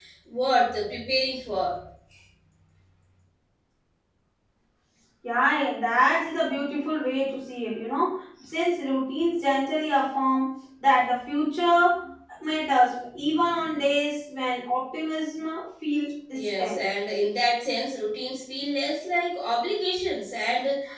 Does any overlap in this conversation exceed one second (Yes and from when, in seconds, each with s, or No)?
No